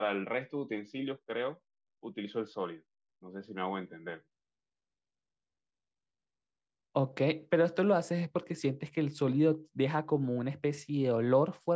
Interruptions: none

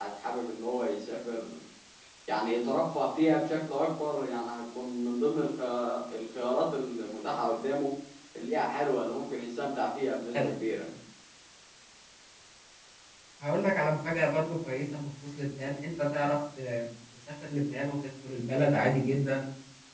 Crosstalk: none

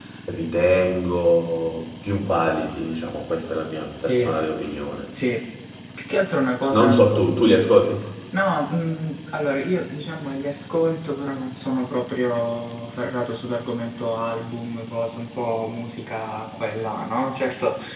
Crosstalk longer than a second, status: none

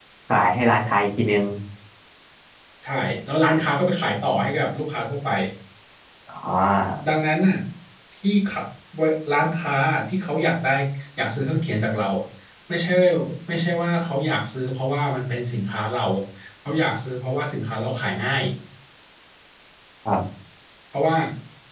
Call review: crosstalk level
none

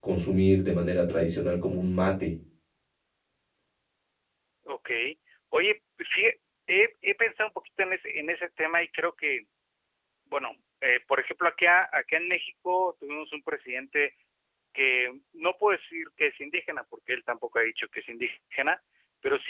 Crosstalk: none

